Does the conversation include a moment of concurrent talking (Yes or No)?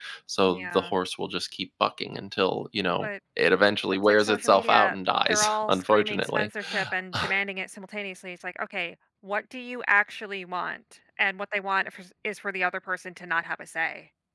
Yes